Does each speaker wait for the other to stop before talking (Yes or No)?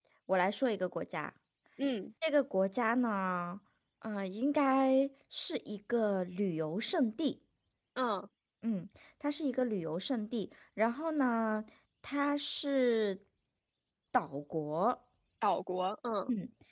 Yes